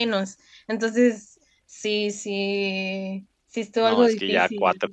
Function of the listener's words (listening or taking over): taking over